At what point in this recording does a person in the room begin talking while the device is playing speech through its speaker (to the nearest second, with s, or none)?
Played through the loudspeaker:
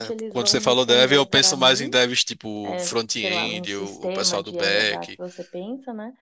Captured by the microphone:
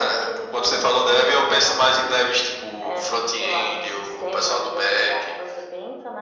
none